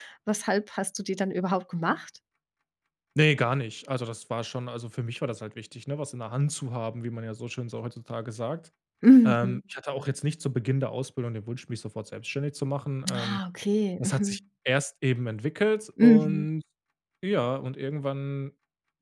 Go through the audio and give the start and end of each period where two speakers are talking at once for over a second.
none

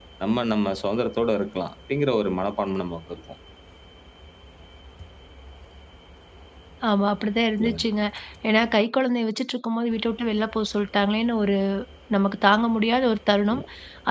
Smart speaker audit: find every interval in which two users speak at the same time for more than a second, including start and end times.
none

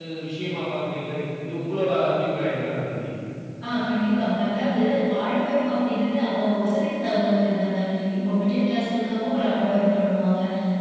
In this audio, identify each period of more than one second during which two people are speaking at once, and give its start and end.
none

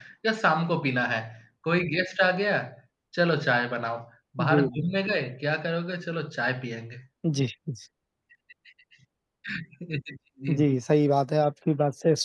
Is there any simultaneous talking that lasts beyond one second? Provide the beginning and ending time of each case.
none

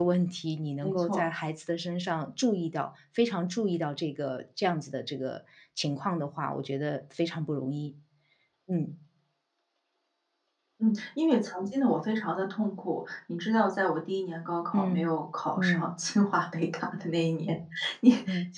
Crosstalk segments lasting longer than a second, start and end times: none

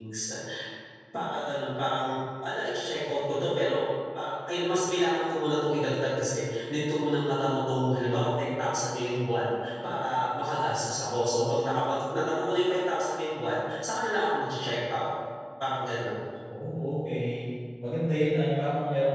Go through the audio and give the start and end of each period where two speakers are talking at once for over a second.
none

